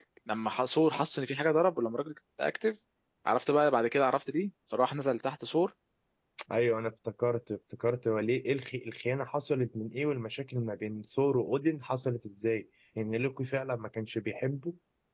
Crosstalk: none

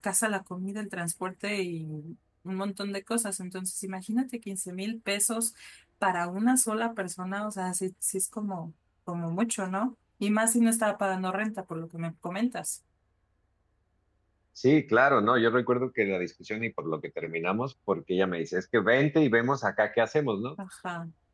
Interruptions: none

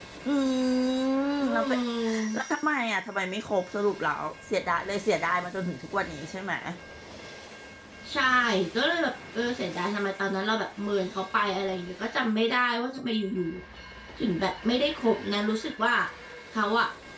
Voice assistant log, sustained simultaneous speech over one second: none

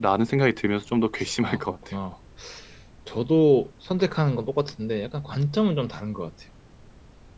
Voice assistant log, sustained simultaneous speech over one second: none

